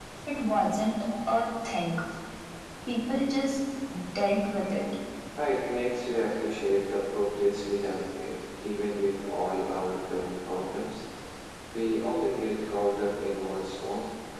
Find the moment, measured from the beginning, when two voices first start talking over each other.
none

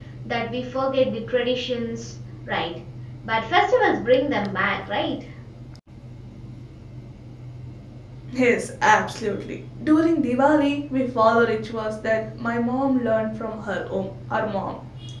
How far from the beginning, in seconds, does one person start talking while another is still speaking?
none

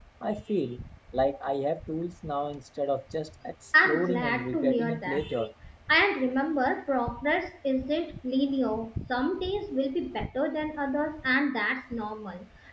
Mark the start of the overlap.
3.7 s

